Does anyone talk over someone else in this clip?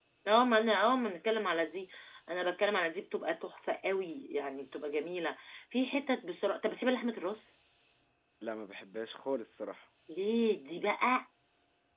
No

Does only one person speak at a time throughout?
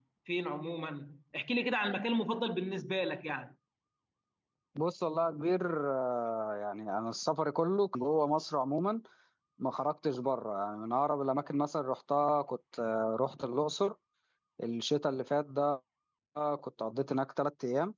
Yes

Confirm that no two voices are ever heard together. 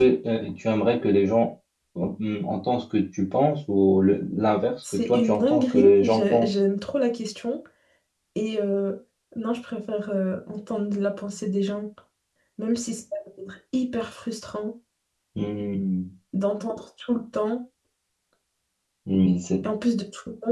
No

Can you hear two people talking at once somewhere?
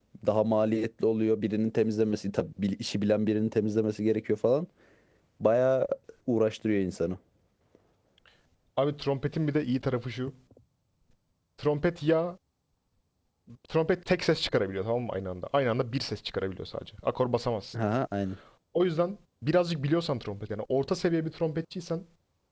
No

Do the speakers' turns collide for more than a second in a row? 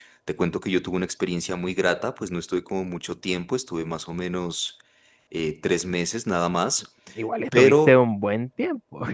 No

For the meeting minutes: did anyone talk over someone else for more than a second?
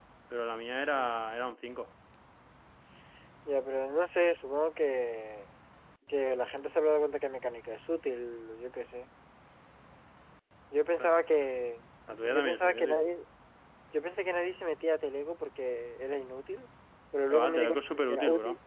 Yes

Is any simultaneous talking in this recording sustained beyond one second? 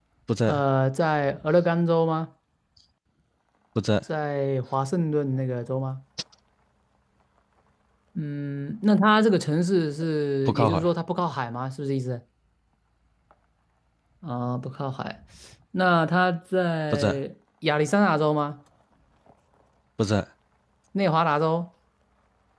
No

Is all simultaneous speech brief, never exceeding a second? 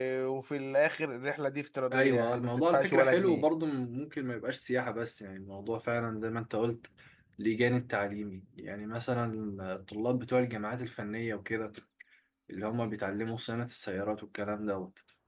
No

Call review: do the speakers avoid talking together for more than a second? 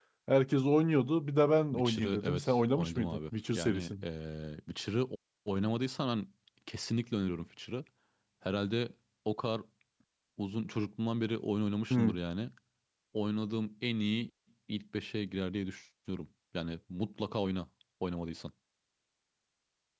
No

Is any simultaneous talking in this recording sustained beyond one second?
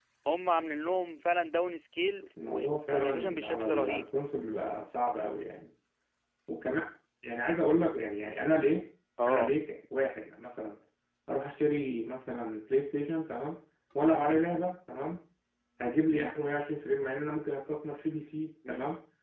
Yes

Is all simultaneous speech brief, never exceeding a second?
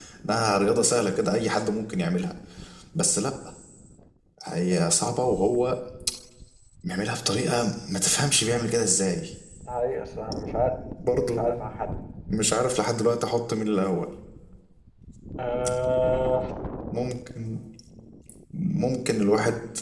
Yes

